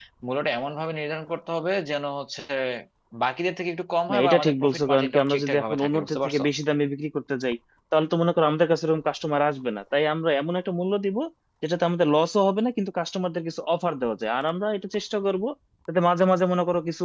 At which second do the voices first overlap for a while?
4.1 s

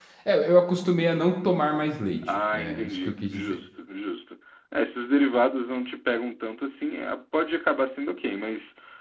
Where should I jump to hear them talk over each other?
2.2 s

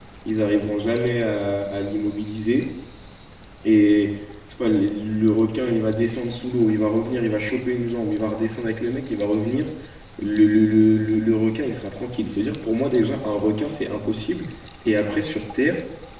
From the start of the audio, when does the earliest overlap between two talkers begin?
none

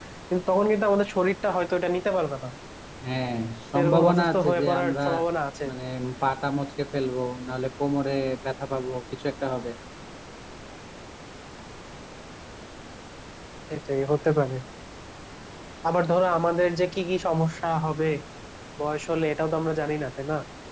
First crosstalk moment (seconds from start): 3.8 s

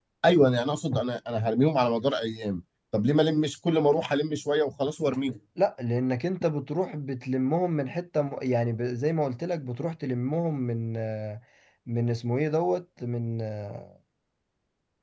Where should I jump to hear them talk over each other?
none

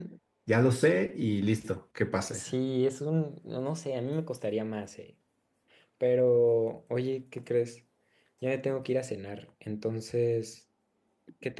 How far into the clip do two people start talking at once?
none

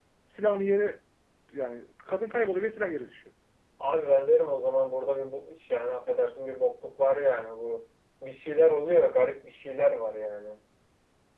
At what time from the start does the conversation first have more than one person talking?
none

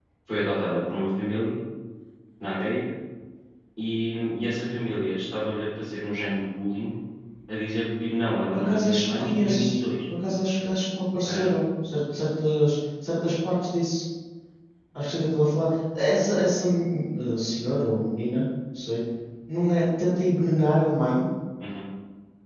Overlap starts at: 8.5 s

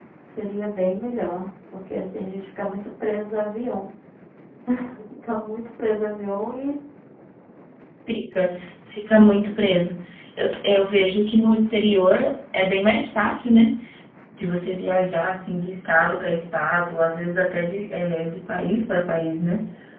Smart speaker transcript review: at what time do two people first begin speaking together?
none

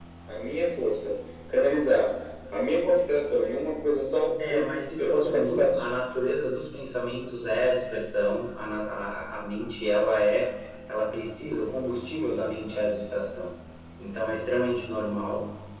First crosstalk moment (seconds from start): 4.4 s

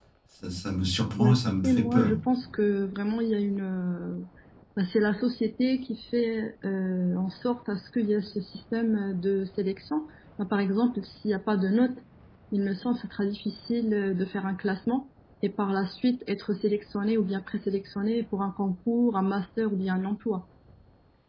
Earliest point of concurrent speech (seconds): 1.1 s

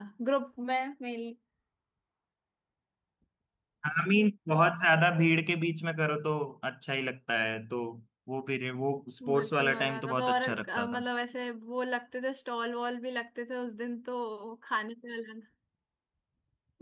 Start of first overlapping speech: 9.2 s

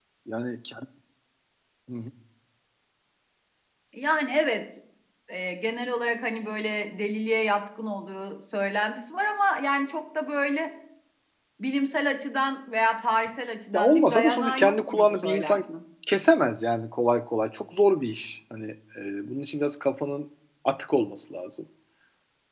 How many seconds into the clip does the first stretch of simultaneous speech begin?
13.7 s

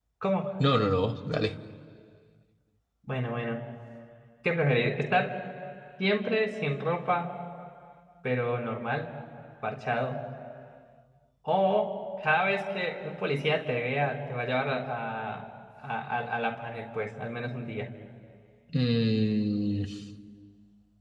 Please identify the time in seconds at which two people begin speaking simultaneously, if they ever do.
none

